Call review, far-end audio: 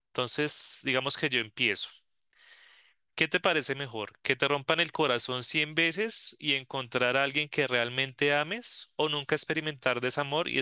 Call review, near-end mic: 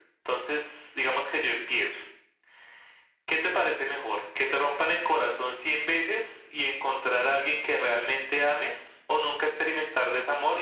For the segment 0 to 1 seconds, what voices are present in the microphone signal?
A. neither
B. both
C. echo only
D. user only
C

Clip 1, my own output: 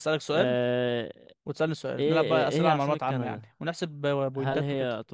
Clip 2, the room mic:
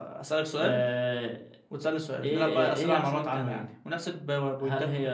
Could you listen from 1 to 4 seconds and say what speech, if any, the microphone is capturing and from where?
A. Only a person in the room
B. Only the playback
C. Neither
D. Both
B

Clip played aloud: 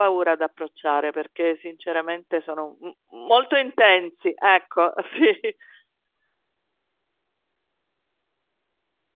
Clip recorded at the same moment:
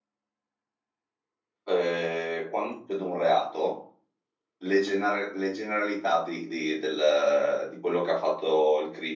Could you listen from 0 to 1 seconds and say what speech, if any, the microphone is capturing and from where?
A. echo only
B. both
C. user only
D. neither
D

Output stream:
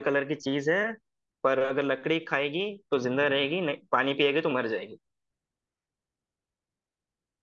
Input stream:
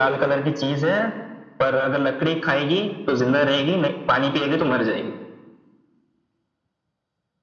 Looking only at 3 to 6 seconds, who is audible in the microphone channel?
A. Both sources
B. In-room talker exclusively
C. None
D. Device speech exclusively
D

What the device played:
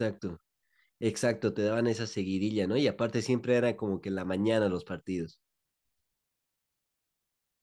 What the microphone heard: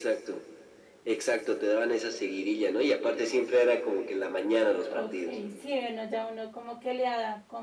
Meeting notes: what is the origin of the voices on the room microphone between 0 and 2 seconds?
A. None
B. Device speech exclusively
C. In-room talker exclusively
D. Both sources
B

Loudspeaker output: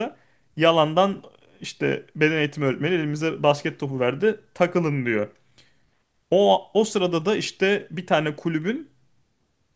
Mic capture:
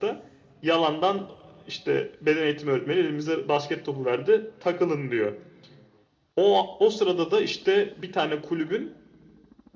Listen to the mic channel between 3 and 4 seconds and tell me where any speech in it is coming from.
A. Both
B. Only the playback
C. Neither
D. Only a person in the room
B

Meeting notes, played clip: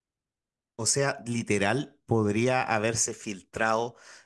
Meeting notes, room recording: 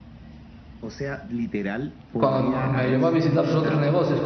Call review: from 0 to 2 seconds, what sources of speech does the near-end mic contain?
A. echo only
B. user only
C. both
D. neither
A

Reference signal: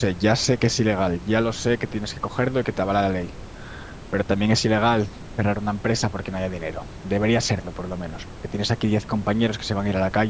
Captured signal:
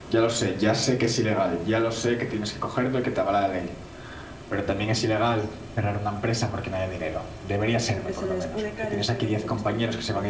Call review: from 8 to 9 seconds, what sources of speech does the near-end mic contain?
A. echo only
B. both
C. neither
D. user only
B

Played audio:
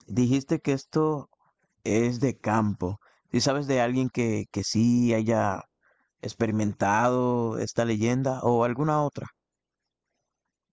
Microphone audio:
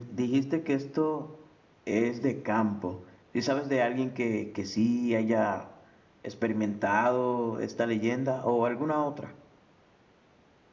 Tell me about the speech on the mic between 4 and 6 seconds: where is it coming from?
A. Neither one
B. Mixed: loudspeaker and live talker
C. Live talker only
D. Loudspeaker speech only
D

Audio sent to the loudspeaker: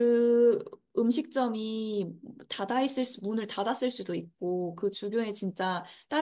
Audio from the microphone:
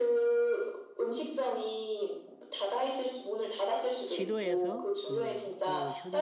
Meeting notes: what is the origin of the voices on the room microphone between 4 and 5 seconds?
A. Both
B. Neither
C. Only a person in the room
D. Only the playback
A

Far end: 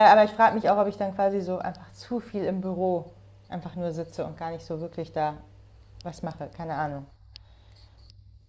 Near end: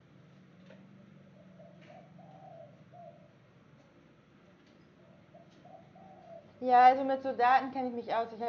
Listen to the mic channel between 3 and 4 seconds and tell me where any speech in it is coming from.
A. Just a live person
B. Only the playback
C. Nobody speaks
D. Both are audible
C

